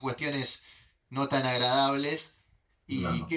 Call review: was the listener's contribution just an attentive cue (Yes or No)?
Yes